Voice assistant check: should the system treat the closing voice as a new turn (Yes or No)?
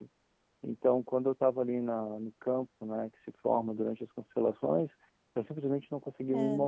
No